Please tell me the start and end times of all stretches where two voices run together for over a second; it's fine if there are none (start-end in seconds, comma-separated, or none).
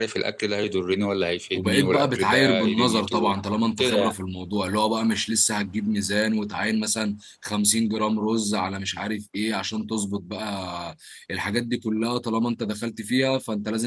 1.5-3.4